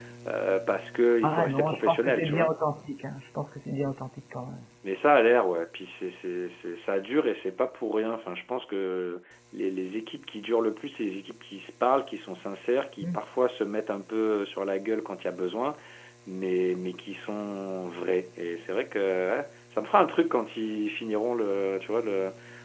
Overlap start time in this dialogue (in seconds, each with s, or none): 1.2 s